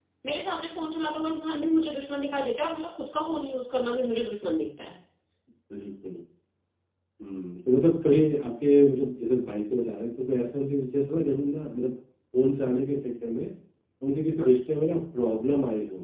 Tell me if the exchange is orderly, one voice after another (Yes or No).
Yes